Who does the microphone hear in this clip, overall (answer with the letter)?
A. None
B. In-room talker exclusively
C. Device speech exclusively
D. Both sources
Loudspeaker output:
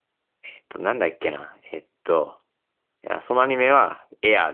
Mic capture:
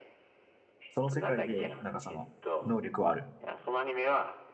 D